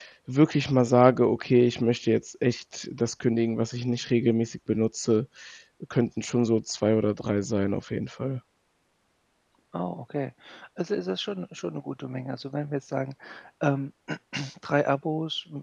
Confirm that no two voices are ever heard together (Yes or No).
Yes